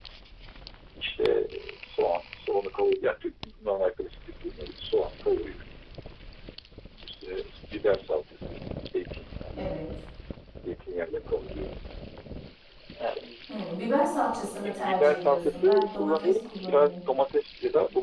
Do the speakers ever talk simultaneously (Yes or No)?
Yes